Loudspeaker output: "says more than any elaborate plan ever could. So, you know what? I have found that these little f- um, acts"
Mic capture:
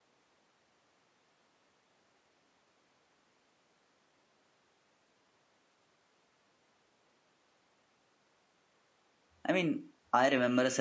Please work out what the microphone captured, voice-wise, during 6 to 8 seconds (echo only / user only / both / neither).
neither